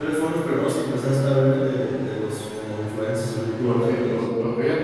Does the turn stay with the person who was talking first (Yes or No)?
No